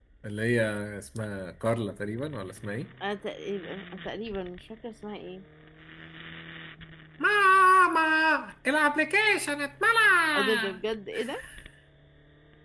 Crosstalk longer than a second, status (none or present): none